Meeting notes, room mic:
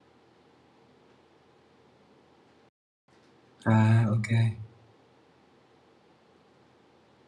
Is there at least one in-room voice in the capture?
Yes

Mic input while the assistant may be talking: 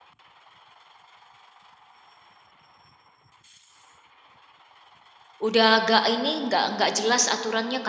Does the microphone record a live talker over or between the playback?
Yes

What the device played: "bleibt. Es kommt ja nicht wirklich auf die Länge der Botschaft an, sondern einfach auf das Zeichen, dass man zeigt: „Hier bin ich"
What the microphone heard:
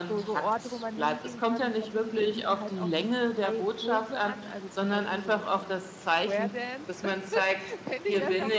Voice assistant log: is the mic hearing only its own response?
No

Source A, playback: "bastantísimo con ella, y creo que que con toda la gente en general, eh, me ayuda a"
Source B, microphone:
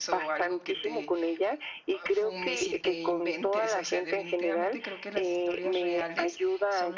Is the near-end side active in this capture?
Yes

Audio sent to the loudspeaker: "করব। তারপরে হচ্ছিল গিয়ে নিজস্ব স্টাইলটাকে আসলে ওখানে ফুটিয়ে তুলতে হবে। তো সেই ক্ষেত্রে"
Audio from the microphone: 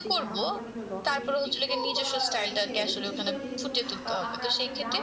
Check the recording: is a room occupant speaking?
Yes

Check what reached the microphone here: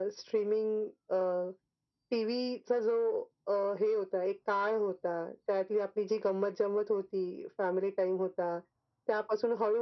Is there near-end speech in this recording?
No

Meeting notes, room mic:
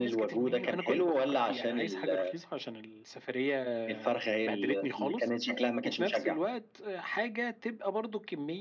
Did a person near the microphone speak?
No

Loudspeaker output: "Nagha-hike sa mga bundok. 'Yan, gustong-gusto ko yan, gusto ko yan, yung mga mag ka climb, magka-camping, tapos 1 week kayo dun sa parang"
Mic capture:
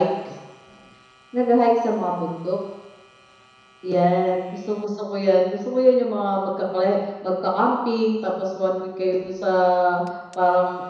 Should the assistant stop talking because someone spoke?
No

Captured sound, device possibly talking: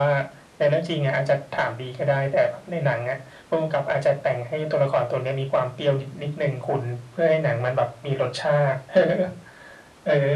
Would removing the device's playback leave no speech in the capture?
Yes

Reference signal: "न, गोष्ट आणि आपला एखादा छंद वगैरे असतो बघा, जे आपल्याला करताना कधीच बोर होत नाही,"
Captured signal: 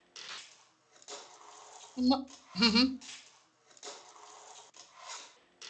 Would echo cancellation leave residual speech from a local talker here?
Yes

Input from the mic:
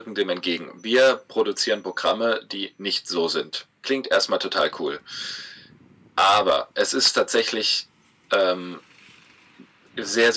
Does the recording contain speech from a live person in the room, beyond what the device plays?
No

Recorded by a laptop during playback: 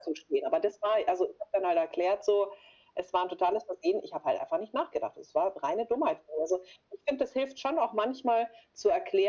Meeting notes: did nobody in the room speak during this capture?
Yes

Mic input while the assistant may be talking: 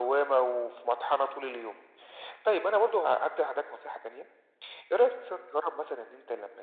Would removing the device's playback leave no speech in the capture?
Yes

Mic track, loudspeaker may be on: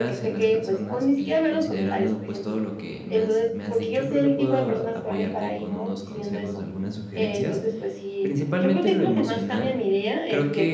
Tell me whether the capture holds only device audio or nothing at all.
No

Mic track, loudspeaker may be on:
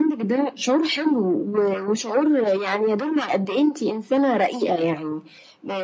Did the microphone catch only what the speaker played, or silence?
Yes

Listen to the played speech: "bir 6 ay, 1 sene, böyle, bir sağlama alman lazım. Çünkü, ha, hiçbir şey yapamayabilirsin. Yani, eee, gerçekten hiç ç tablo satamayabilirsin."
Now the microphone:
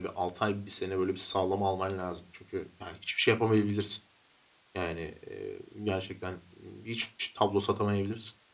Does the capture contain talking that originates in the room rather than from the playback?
No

